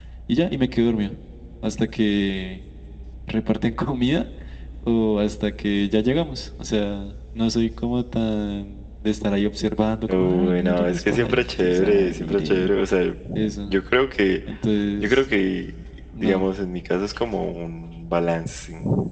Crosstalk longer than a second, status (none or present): present